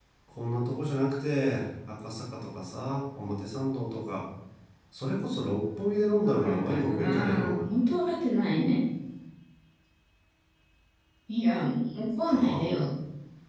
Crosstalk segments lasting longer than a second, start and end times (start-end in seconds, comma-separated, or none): 6.2-7.6